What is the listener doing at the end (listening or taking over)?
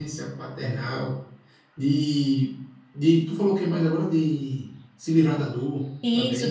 taking over